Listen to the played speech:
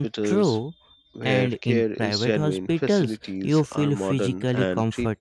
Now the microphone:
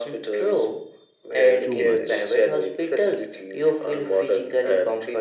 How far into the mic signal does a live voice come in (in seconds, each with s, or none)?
1.6 s